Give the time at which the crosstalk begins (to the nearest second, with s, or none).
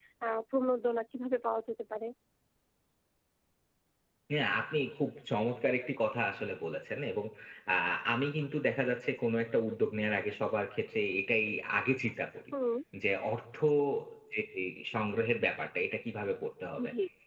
none